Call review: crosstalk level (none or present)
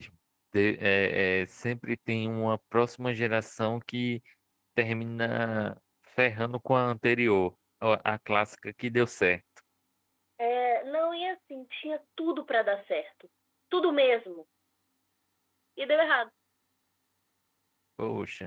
none